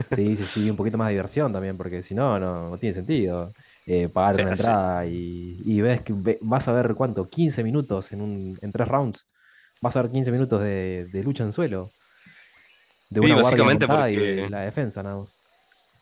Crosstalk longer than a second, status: present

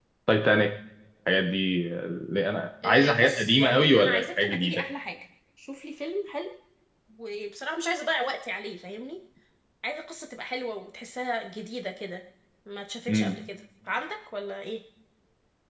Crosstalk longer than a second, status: present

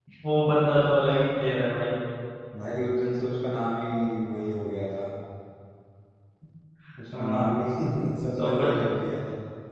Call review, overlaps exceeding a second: none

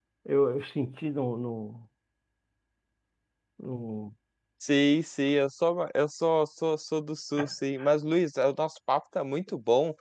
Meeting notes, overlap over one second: none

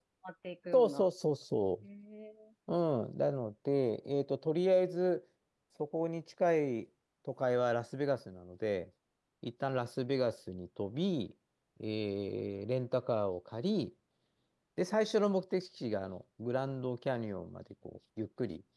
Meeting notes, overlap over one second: none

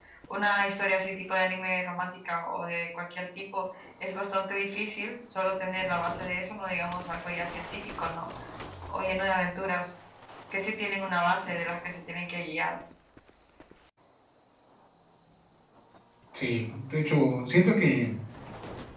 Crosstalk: none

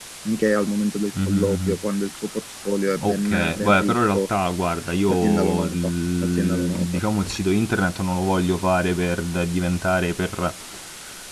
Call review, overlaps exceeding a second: present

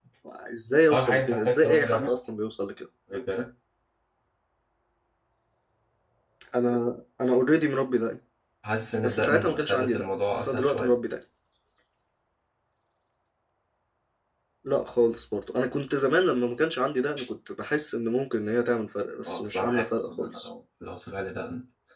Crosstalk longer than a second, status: present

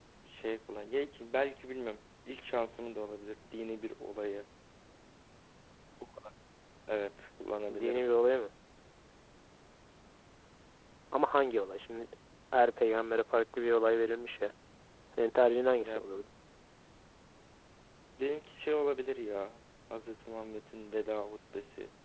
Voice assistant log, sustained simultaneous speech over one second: none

